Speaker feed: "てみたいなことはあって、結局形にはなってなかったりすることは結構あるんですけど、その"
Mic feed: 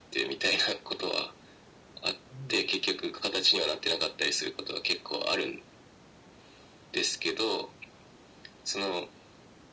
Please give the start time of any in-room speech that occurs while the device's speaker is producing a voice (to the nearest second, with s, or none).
2 s